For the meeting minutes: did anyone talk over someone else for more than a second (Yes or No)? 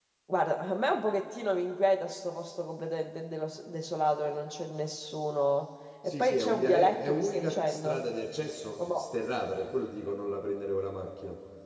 Yes